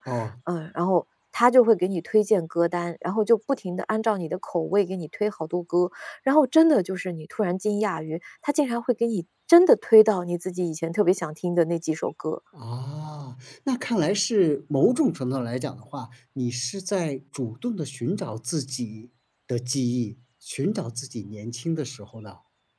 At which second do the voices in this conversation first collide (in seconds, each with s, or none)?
none